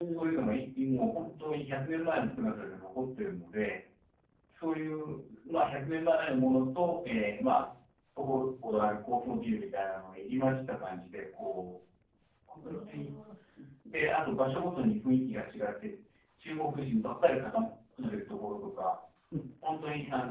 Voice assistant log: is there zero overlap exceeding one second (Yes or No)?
Yes